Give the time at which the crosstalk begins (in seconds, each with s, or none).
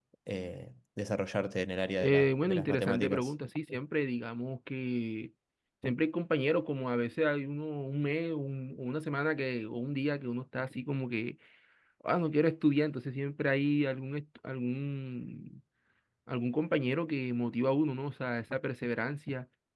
2.0 s